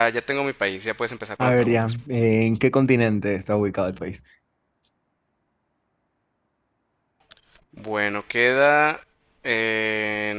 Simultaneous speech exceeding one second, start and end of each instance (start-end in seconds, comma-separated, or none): none